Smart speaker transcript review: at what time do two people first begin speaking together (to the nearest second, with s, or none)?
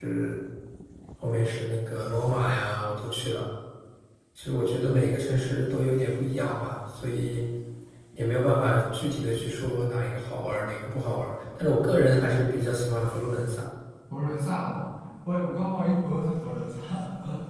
none